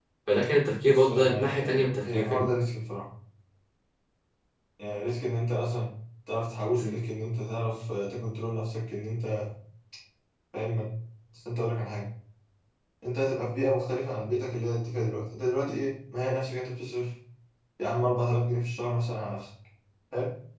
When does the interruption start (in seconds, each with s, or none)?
0.9 s